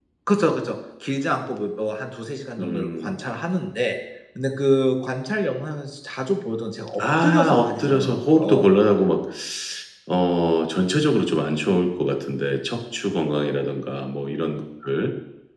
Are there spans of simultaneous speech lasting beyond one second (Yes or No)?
Yes